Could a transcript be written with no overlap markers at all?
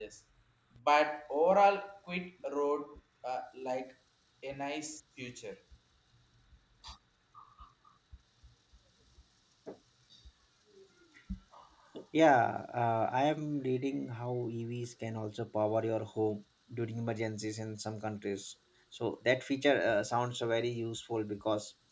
Yes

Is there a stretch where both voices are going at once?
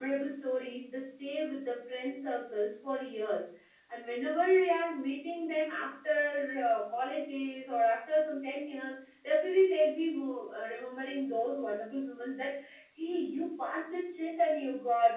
No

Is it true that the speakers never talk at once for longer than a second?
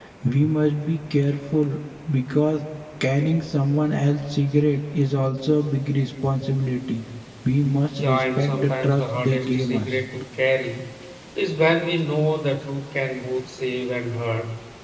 No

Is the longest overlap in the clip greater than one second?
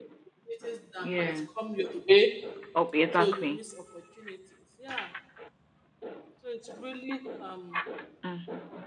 No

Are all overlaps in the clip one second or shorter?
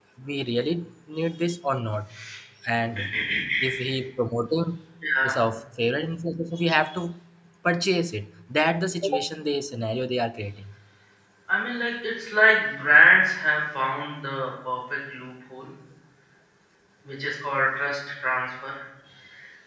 Yes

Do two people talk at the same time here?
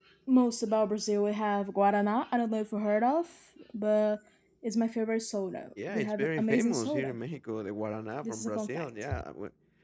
Yes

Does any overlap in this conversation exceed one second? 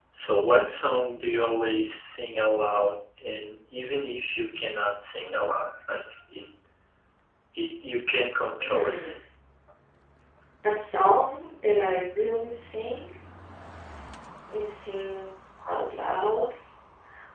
No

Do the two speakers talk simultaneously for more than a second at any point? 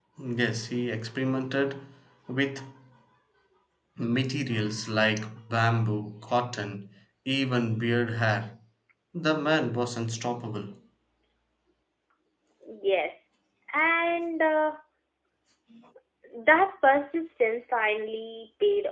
No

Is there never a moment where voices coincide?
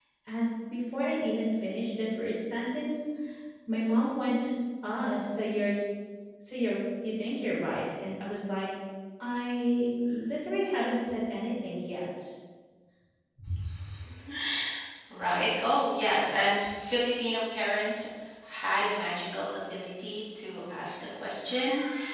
Yes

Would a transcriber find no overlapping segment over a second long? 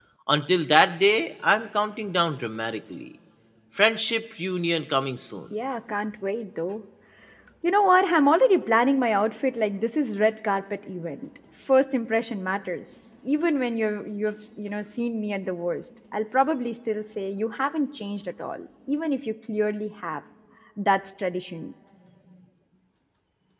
Yes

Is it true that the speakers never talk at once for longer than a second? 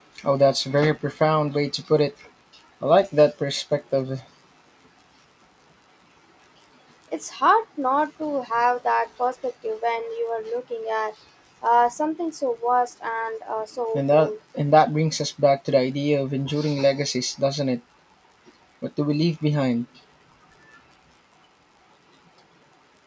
Yes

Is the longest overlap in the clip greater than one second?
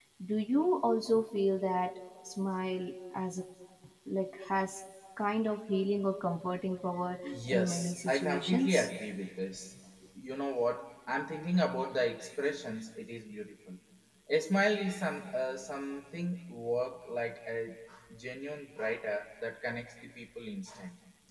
Yes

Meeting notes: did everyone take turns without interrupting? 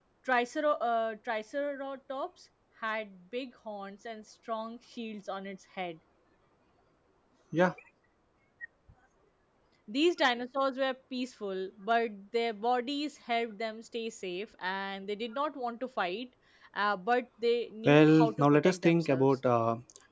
No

